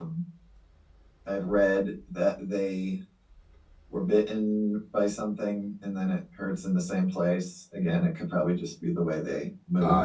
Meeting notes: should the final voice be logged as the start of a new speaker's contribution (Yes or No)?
Yes